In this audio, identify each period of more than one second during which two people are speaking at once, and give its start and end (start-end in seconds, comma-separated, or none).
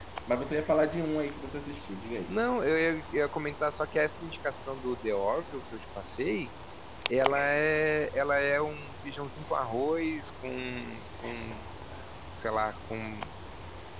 none